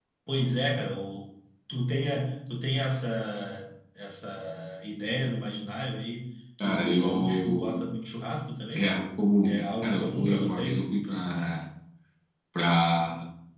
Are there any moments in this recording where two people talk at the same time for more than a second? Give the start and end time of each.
6.6-7.8, 9.4-10.9

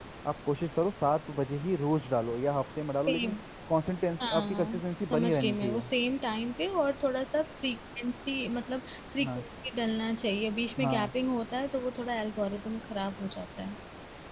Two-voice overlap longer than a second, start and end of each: 4.2-5.9

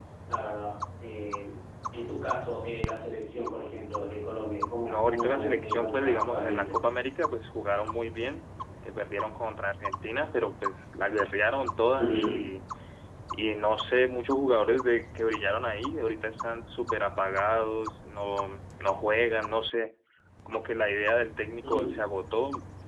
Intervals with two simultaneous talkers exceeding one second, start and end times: 4.8-6.7

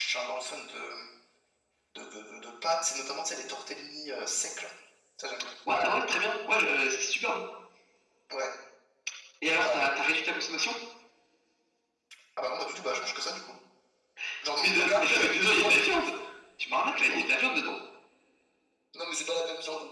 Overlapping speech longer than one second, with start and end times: 14.6-16.1

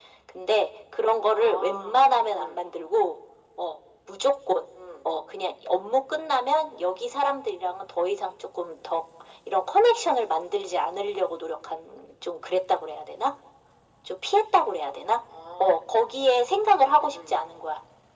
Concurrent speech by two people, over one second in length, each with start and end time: 1.3-2.7

